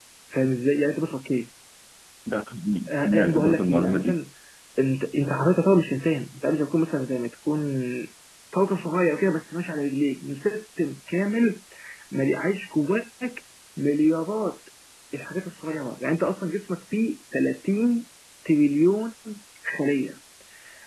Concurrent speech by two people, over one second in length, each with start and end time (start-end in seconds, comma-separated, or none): 2.9-4.2